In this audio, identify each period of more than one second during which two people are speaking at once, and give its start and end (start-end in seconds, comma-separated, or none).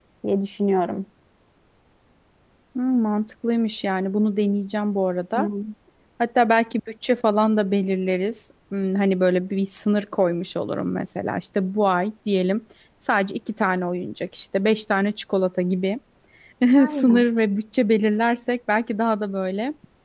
none